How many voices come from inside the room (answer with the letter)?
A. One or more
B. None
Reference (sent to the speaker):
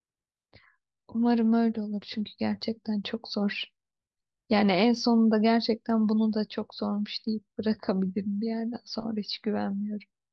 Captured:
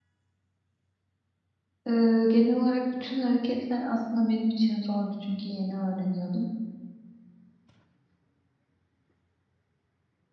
A